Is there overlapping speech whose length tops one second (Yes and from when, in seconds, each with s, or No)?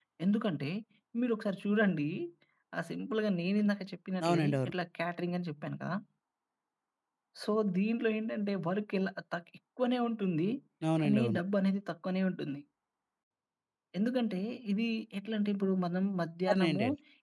No